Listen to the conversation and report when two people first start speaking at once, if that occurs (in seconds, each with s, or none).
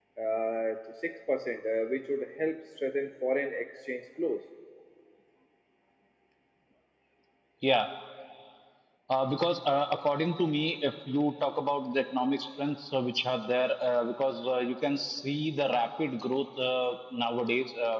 none